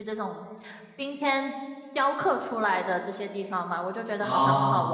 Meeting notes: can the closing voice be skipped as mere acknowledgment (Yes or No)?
Yes